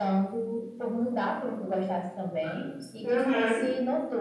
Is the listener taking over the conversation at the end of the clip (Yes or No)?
No